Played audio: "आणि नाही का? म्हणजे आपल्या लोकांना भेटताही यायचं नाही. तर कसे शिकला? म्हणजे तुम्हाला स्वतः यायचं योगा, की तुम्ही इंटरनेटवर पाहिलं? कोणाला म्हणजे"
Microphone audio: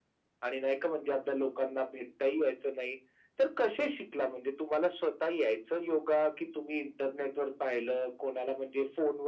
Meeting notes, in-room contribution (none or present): none